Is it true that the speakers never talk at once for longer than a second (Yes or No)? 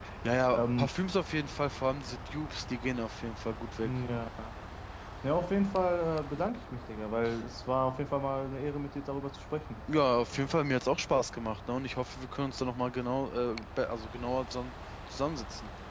Yes